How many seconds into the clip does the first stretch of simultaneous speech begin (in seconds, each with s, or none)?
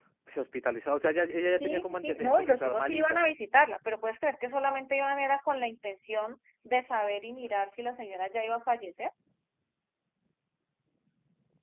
1.6 s